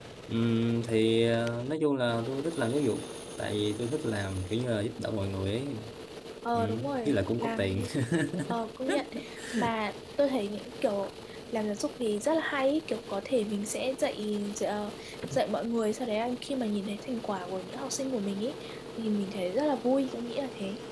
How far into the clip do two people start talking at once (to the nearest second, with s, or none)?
7 s